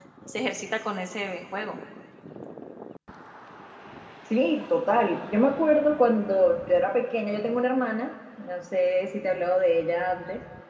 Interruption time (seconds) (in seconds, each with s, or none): none